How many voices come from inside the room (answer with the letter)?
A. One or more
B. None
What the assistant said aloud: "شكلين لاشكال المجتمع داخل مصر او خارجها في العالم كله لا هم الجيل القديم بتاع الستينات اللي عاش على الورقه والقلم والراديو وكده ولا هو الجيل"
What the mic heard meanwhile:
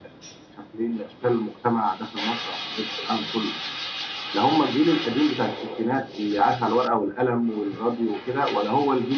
B